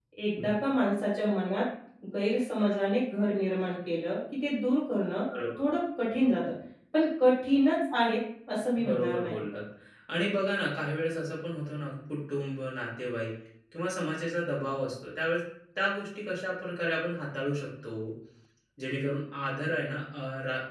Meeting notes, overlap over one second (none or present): none